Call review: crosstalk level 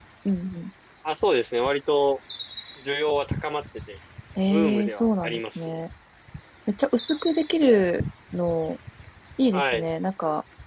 present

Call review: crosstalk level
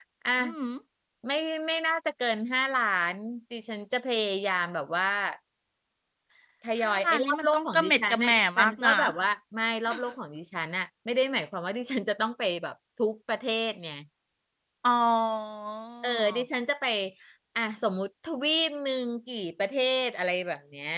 present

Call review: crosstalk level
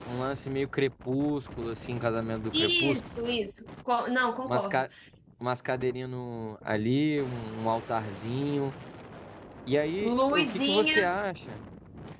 present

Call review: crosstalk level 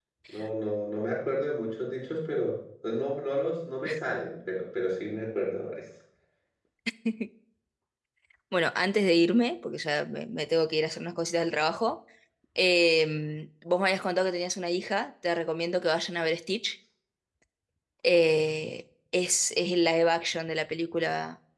none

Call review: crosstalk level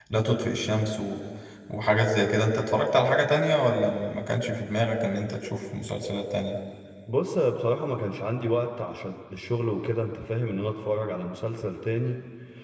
none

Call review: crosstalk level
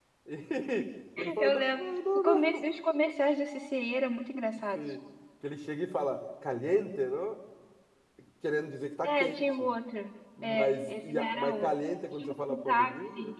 present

